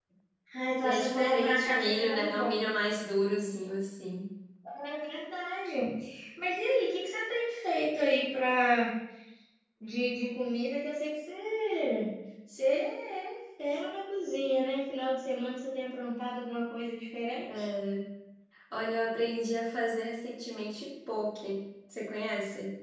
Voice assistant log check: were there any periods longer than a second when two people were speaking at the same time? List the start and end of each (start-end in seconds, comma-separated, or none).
0.8-2.5